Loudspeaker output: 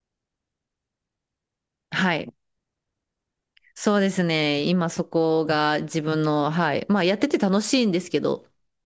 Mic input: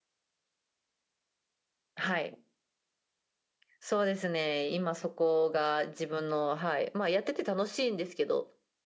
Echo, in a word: present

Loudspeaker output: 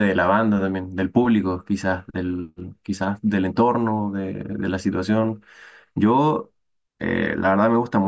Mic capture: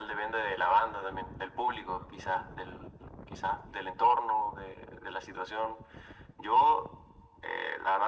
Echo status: present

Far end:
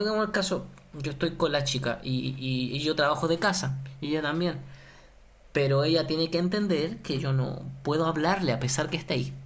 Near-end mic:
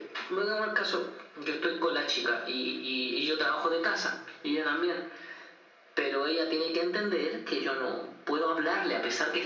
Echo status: present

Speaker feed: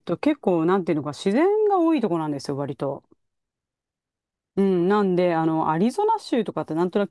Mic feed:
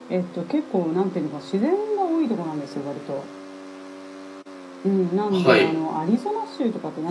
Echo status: present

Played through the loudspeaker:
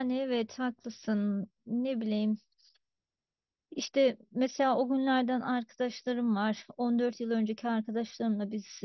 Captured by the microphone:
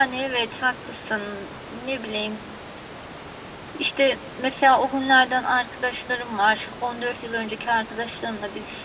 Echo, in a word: present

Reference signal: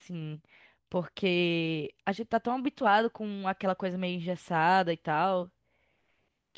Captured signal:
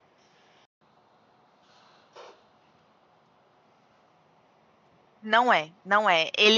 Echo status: none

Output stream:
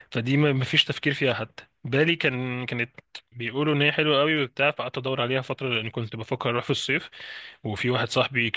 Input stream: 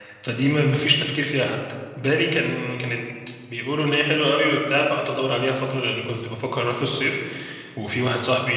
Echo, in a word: present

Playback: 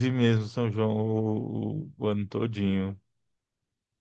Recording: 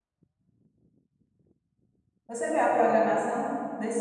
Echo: none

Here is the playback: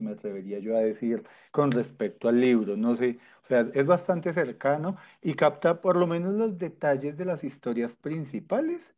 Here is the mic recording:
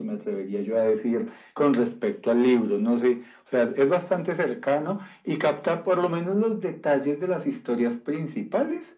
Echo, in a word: present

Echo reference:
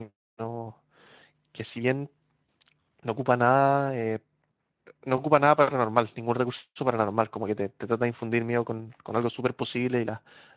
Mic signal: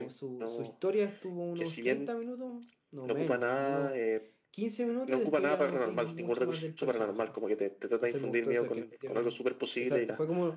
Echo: present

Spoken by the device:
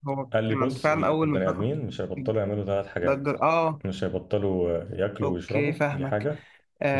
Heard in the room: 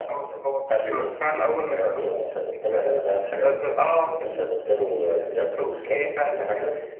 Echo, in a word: present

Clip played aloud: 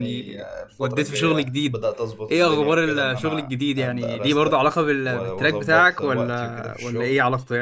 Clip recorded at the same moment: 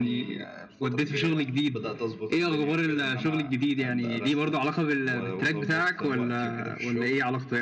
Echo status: present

